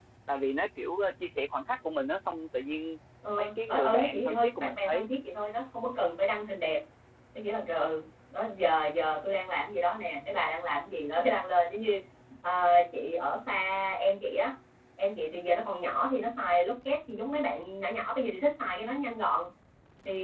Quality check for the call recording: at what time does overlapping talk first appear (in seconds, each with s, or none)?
3.4 s